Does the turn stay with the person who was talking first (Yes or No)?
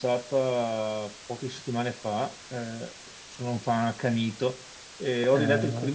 Yes